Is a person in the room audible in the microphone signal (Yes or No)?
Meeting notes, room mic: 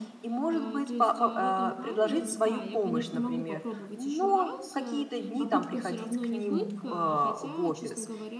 Yes